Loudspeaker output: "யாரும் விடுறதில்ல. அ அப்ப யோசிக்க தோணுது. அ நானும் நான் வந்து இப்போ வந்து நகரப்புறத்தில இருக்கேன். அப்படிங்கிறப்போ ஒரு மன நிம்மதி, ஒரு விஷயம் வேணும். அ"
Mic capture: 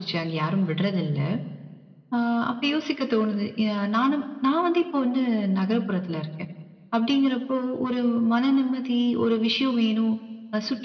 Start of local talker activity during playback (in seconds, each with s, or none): none